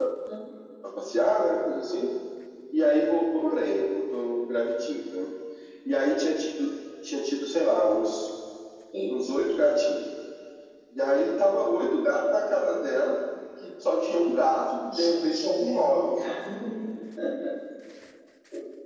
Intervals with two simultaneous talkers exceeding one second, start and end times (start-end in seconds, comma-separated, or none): 14.9-16.2